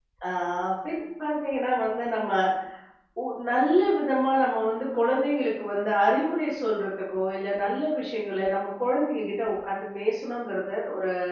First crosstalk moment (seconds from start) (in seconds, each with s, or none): none